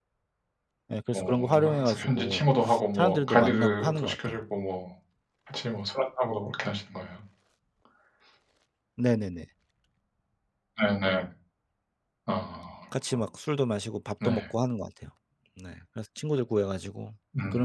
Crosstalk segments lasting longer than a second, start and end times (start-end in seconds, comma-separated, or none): 1.1-2.4, 3.0-4.4